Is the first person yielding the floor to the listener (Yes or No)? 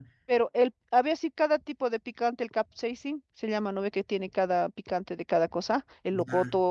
No